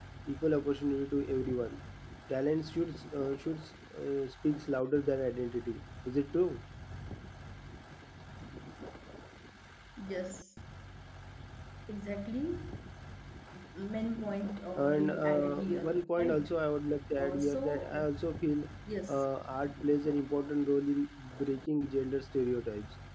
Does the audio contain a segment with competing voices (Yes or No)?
Yes